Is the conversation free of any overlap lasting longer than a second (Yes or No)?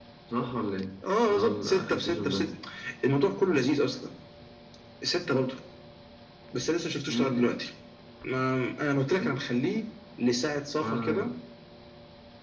No